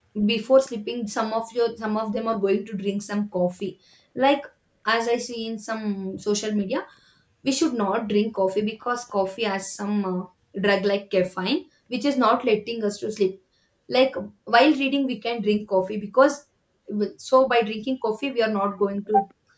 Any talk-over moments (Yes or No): No